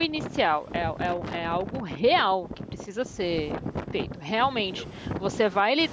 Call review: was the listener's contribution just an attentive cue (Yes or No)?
Yes